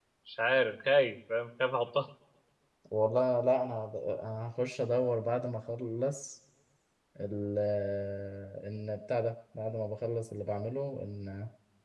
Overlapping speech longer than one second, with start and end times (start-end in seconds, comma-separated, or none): none